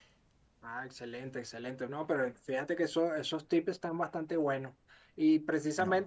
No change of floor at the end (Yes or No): Yes